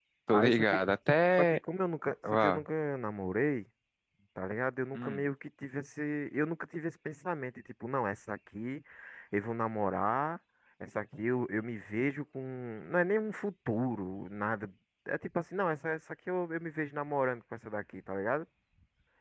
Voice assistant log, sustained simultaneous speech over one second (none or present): none